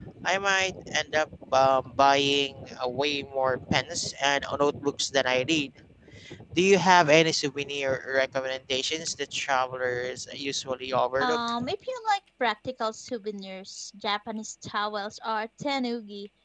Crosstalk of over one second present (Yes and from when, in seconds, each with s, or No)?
No